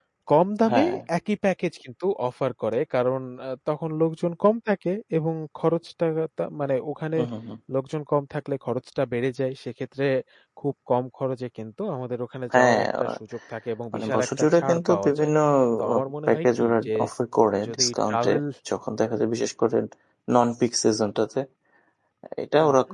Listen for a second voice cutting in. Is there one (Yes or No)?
Yes